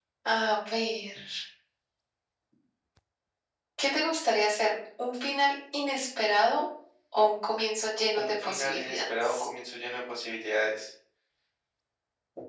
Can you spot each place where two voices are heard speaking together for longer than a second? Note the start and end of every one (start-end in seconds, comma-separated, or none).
8.2-9.5